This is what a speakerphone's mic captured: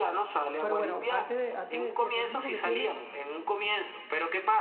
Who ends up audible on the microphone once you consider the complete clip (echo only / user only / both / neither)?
both